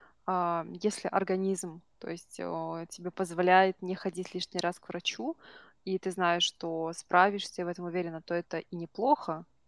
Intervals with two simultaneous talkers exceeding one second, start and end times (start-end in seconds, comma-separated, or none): none